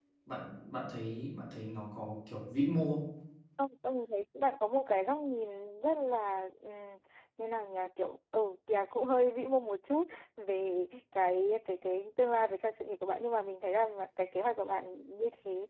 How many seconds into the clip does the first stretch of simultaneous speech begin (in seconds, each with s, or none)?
none